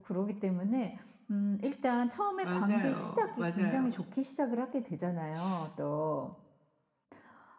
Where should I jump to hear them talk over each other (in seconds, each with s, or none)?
2.4 s